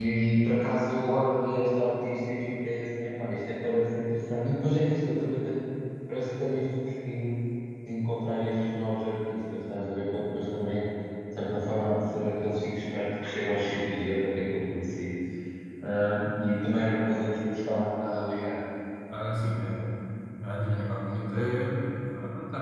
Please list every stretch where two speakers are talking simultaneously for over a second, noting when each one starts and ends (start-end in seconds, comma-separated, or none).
none